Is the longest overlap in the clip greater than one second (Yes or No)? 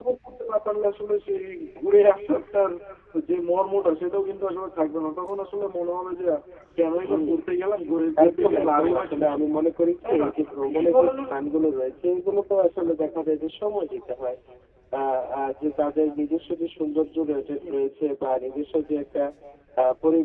Yes